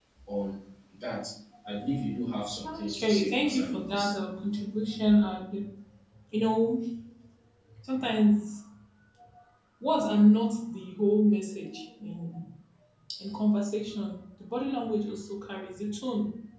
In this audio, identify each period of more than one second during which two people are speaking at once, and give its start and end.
2.6-4.2

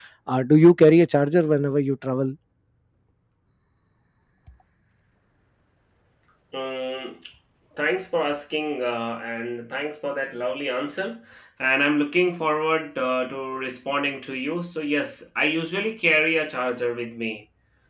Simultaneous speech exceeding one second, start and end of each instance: none

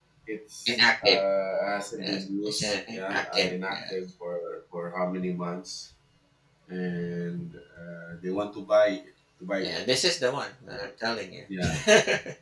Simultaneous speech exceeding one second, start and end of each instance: 2.0-3.9

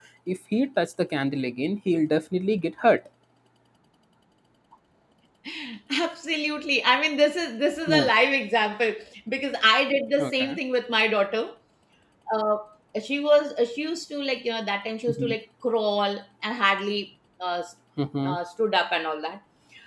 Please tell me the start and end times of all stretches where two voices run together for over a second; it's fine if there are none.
none

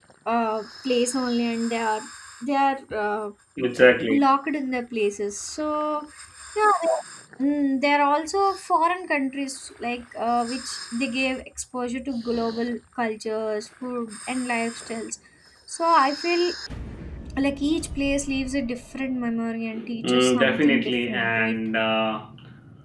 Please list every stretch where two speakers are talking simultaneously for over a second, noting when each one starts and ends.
20.0-21.6

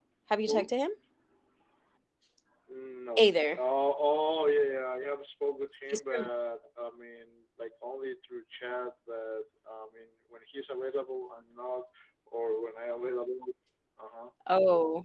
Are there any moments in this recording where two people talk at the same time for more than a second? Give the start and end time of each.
none

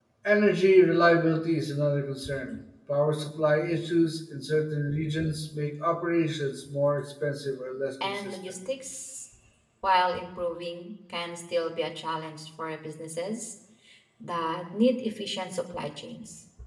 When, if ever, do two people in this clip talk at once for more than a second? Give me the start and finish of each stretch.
none

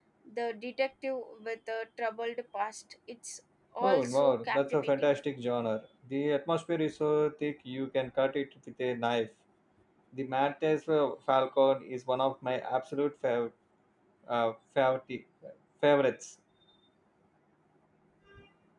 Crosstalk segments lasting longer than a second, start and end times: 3.8-5.1

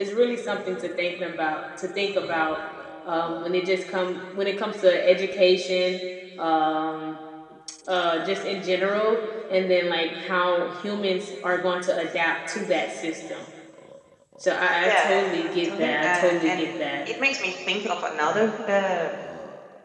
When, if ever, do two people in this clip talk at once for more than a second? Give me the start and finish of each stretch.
14.8-16.7

